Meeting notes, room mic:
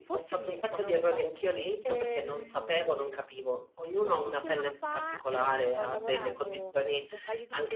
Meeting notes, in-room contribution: present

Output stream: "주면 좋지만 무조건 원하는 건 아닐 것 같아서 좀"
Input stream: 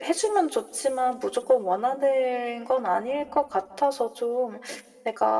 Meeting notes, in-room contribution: none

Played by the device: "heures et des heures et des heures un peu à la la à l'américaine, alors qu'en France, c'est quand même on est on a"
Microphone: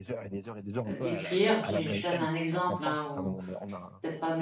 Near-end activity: present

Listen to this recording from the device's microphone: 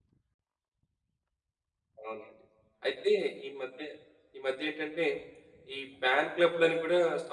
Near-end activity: present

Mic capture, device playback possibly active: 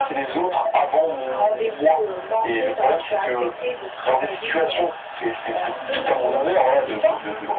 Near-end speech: present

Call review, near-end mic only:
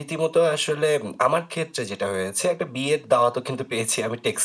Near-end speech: none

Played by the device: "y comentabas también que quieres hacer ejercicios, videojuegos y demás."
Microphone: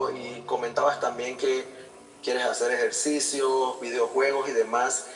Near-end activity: none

